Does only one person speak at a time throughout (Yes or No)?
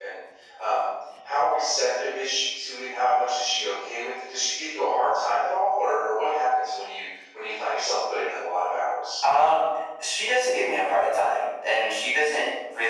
Yes